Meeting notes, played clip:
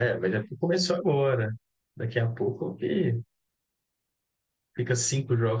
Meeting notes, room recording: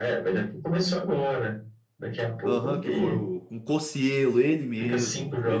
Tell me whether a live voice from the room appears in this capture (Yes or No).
Yes